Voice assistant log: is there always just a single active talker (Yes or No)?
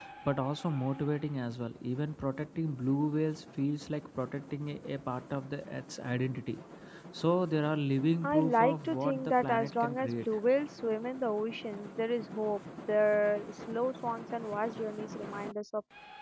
No